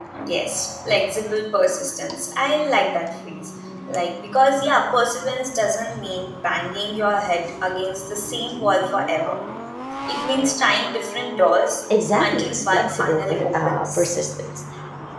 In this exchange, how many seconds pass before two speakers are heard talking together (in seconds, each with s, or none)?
12.2 s